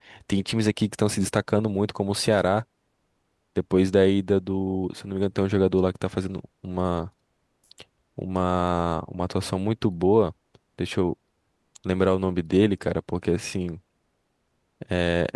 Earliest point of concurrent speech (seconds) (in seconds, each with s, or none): none